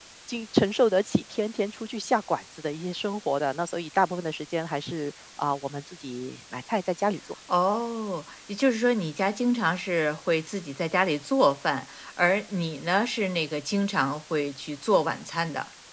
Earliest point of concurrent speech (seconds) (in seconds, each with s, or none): none